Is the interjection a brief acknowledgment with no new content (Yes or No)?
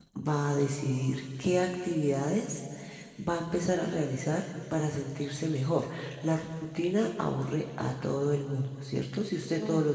Yes